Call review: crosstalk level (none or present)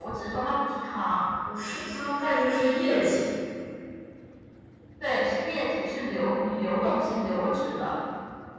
none